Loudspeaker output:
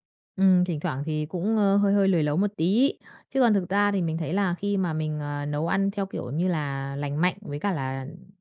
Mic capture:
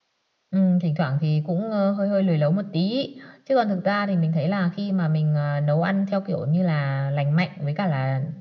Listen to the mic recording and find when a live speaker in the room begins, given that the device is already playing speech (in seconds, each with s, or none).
none